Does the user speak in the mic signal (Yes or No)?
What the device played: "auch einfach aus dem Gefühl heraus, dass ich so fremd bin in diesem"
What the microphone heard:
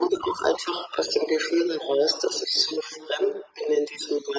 No